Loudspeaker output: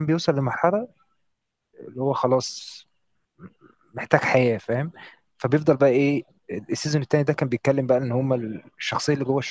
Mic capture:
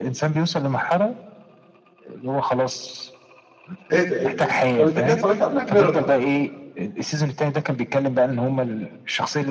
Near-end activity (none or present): present